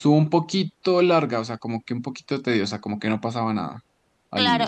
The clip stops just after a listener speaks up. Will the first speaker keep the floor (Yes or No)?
No